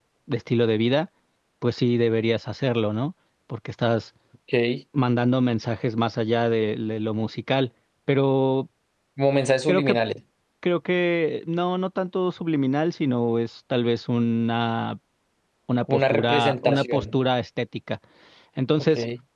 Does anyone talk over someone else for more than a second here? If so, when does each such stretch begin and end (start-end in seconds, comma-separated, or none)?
15.9-17.1